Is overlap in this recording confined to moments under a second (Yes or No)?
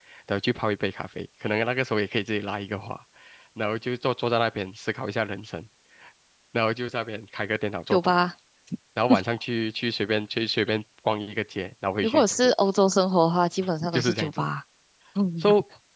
Yes